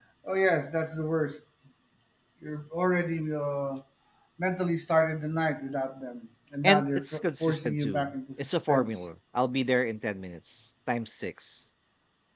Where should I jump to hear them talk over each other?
7 s

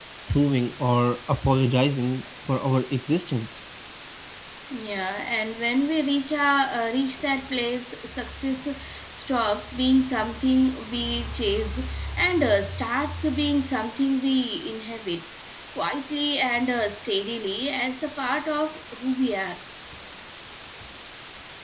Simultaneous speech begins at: none

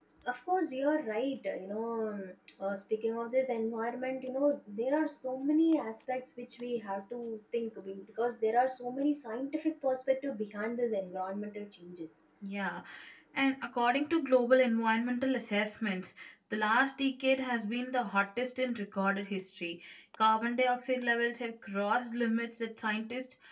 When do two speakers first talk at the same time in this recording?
none

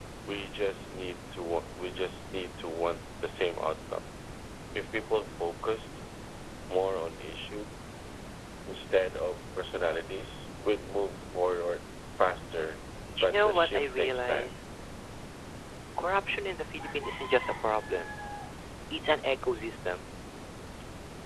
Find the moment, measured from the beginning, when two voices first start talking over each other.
13 s

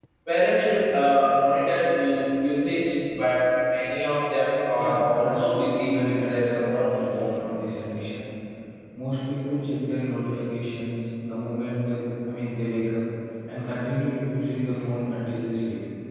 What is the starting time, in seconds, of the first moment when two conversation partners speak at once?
5 s

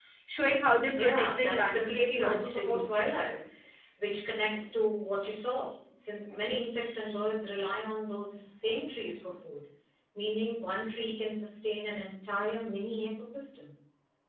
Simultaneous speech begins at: 1 s

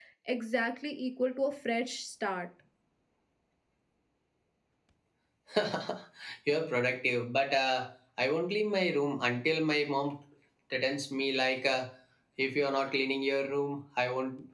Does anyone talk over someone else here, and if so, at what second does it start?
none

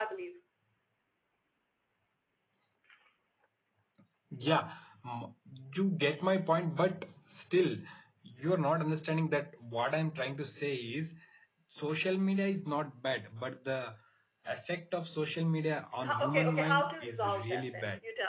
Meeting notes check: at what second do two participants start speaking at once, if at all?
16 s

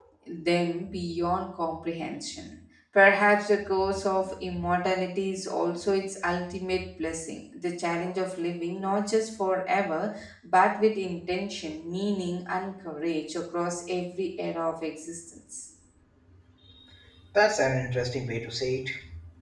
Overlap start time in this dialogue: none

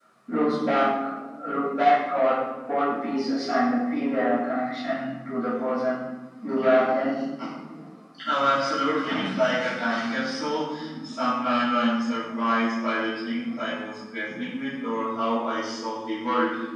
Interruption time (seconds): none

